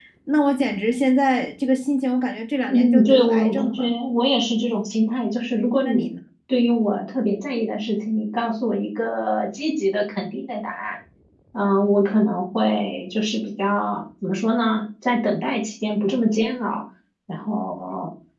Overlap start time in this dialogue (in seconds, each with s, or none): 2.7 s